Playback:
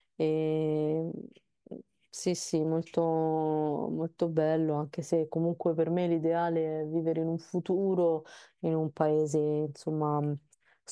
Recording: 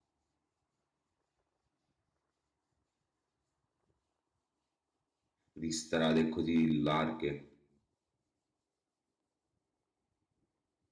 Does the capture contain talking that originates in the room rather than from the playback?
Yes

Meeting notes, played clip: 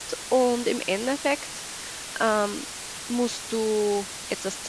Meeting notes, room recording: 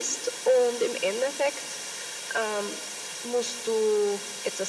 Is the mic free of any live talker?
Yes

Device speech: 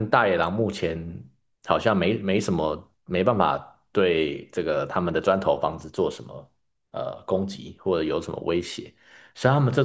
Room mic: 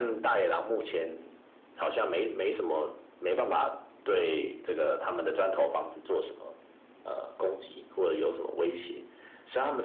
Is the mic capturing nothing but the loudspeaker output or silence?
Yes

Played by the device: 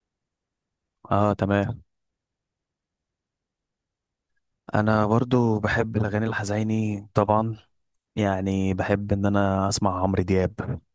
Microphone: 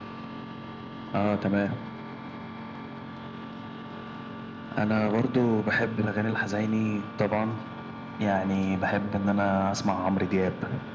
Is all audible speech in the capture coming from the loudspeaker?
Yes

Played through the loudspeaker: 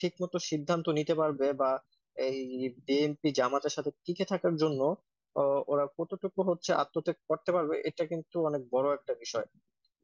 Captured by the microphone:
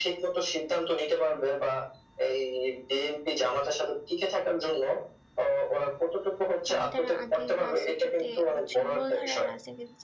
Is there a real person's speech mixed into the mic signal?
Yes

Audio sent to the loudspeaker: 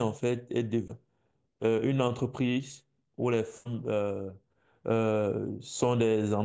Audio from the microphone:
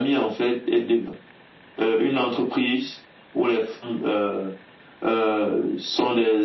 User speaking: No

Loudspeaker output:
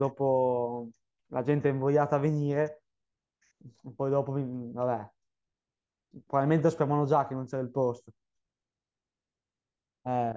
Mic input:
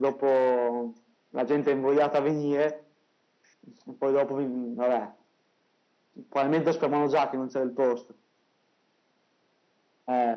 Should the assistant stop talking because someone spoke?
No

